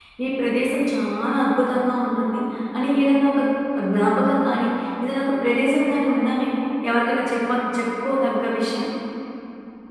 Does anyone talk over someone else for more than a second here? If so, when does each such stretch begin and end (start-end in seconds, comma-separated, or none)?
none